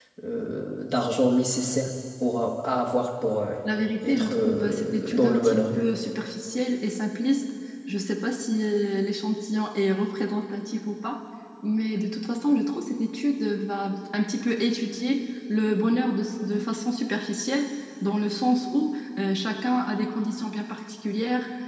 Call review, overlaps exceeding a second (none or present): present